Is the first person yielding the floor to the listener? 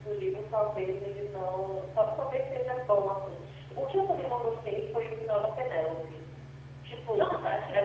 No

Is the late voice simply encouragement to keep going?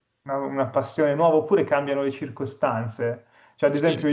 Yes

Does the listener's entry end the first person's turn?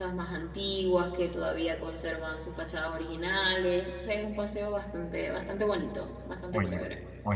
Yes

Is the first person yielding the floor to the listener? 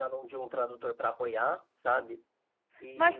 Yes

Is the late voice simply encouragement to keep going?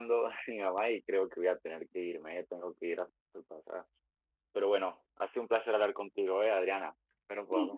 No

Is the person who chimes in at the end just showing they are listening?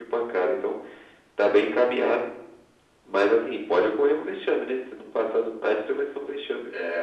No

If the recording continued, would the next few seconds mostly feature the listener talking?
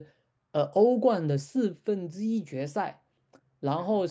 No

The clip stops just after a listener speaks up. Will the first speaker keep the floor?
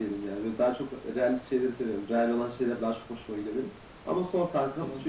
Yes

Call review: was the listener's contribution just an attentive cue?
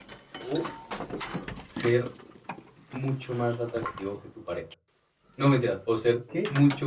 Yes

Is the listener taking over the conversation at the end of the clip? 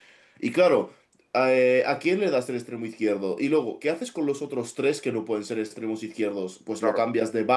No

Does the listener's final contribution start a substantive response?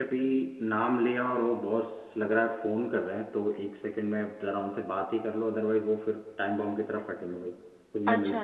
Yes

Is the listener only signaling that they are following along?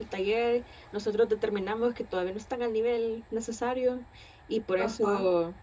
Yes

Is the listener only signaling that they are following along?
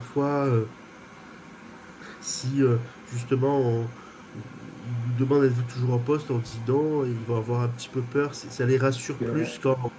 Yes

